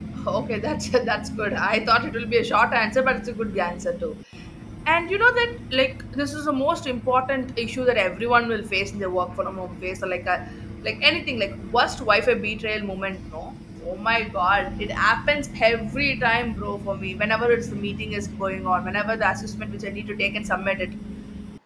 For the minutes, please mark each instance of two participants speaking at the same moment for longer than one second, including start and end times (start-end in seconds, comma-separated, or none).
none